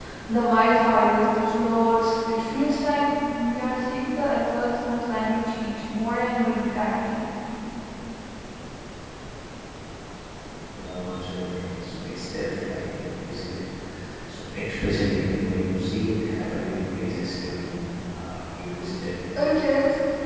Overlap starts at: none

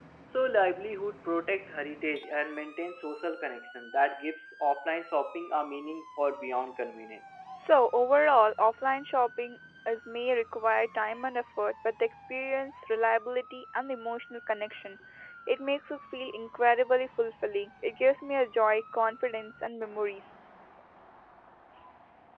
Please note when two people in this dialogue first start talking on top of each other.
none

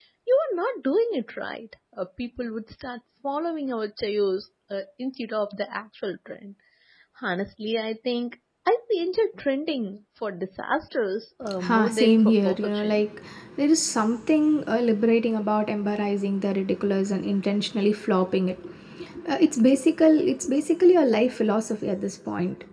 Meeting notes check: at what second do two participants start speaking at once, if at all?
11.6 s

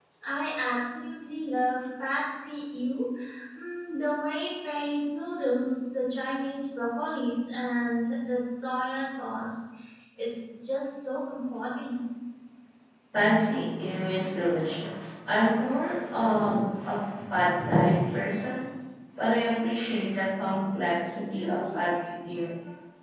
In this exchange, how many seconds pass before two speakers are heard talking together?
none

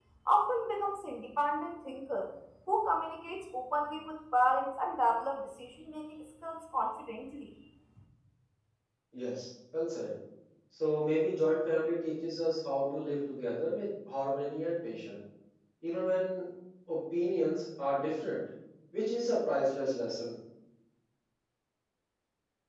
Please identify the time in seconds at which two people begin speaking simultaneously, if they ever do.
none

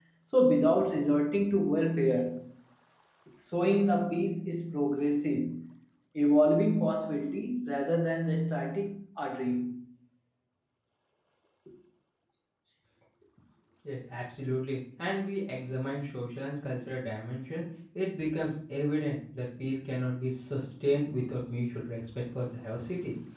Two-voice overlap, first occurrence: none

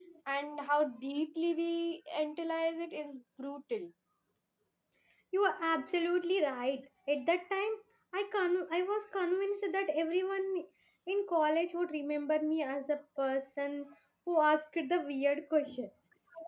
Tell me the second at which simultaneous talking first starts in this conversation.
none

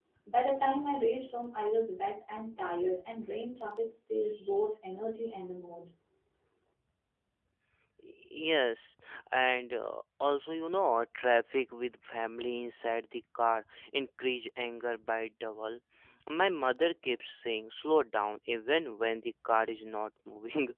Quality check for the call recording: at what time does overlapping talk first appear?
none

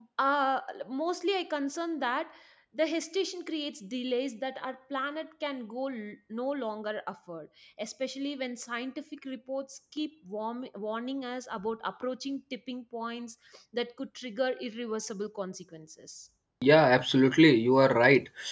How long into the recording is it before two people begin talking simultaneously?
none

